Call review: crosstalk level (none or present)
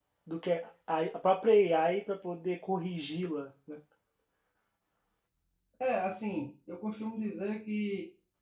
none